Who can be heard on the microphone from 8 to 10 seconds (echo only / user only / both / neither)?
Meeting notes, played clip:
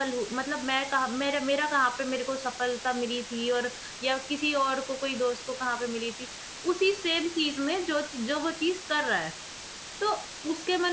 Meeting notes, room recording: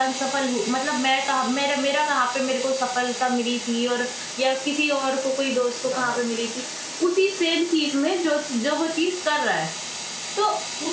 echo only